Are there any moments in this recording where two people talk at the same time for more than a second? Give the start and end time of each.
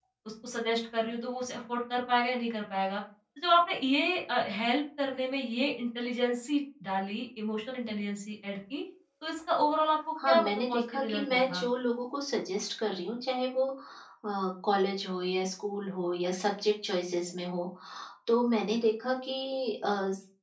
10.3-11.6

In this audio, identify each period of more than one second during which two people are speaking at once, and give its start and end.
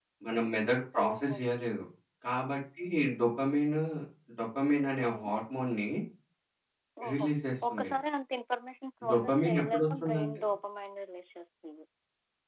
9.1-10.4

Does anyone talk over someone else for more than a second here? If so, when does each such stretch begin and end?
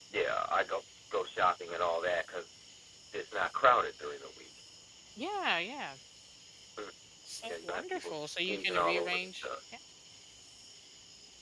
7.5-9.5

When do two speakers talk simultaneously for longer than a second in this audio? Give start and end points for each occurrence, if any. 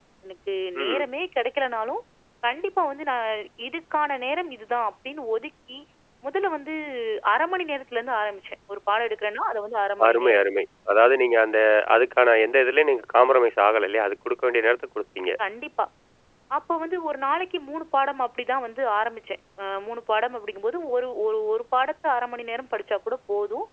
none

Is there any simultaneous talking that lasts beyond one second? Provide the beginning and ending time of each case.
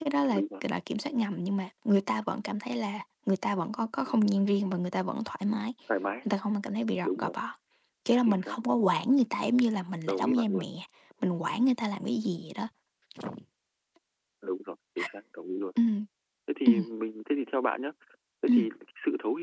none

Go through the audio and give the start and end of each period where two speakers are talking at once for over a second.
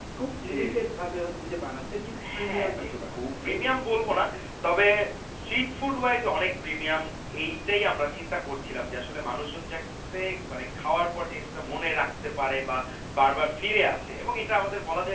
2.4-4.2

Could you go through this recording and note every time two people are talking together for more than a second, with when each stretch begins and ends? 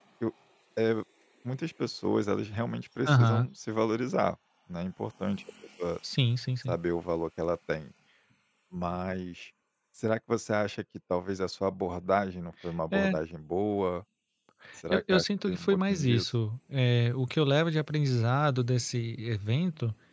14.9-16.3

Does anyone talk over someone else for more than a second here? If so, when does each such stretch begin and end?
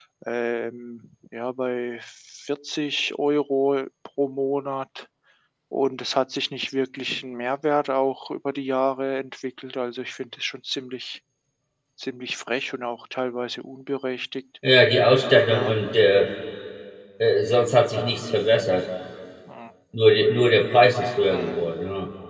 none

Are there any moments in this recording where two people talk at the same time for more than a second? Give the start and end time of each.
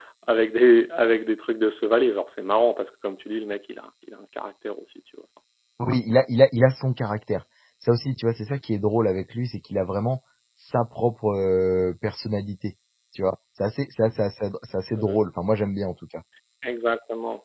none

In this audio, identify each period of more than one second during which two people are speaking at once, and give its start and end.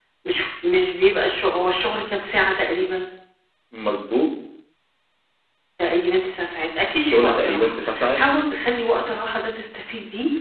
7.0-8.2

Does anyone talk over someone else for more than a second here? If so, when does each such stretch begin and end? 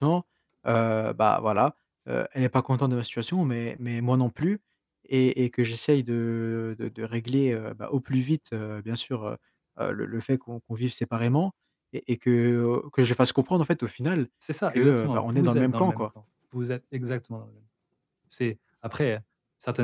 14.7-16.1

